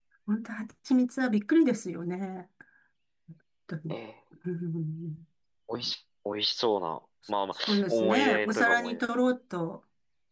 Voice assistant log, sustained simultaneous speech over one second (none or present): present